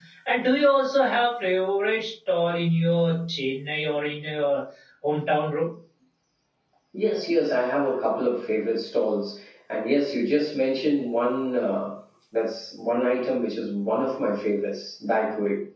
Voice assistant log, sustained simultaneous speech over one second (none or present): none